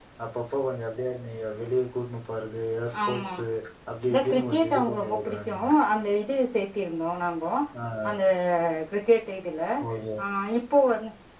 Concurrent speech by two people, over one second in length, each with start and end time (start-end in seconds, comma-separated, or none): 4.1-5.5